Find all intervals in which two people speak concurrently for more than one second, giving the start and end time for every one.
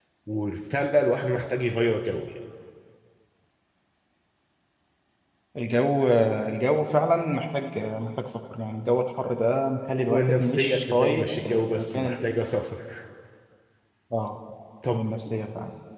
10.1-12.2

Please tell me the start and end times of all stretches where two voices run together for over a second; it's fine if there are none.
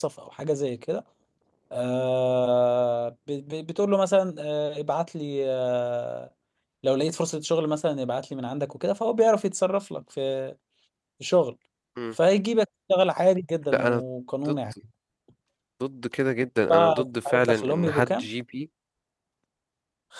16.7-18.3

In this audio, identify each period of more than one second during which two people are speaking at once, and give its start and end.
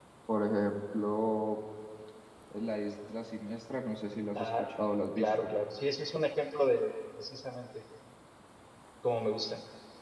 none

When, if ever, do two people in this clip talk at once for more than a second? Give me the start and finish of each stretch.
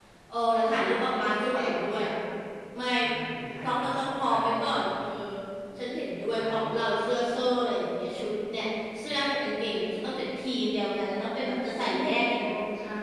0.7-2.0, 3.6-4.9

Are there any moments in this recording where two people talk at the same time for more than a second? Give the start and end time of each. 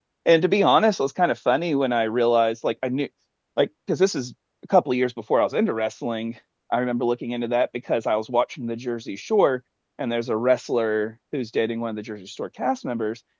none

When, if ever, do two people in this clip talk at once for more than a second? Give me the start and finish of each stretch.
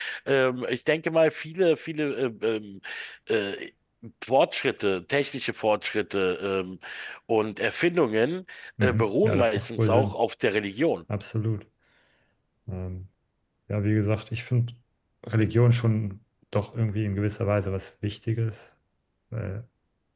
8.8-10.1

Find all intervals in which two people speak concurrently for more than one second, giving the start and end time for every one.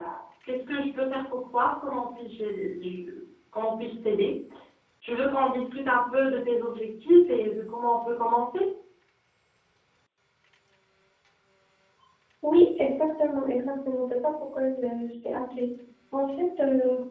none

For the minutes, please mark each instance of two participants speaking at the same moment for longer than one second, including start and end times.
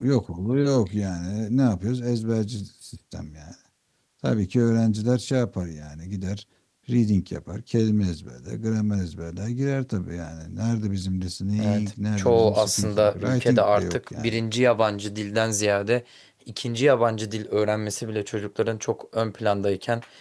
11.6-14.3

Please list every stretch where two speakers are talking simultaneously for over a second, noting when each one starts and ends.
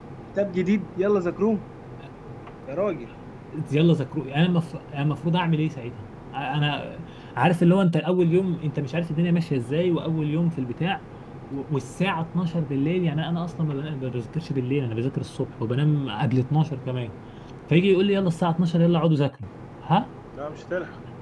none

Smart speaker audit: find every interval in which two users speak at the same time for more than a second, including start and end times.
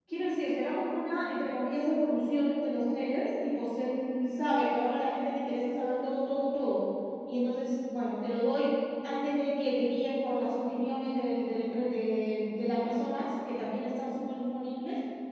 none

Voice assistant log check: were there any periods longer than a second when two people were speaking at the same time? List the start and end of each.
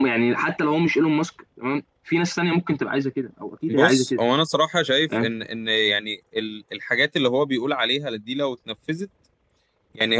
none

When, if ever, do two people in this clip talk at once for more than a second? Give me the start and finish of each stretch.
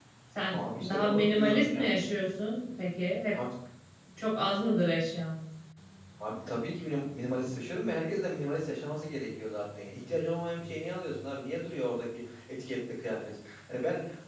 0.5-1.9

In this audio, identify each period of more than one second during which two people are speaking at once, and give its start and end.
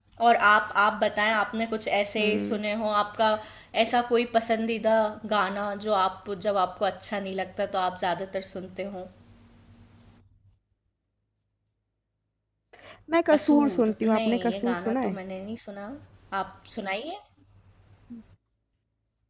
13.3-15.2

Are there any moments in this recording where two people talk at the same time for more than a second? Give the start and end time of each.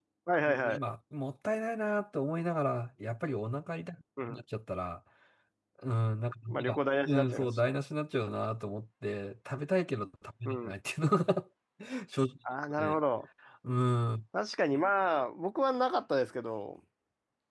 6.5-7.8

